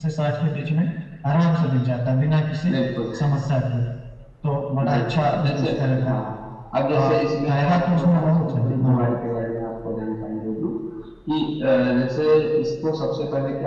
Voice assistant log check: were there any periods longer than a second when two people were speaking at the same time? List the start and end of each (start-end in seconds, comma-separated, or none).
4.9-6.2, 6.9-9.1